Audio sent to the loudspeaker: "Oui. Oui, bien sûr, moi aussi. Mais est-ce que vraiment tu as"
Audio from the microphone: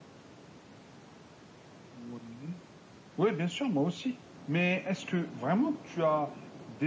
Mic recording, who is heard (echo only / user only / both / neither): echo only